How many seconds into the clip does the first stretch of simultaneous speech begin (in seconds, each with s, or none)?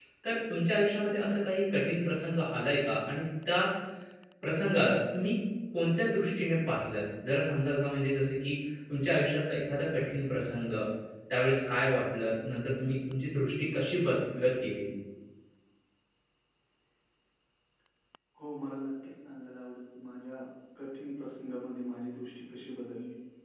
none